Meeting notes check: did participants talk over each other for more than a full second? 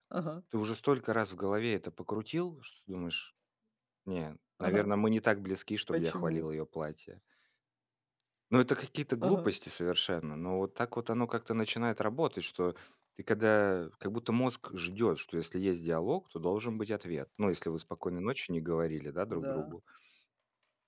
No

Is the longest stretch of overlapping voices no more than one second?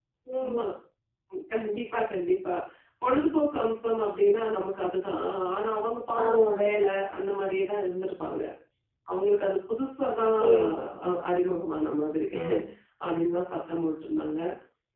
Yes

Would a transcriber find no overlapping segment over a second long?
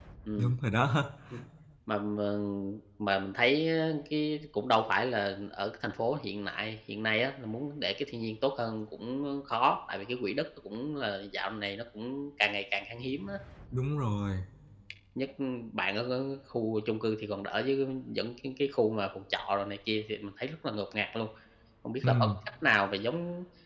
Yes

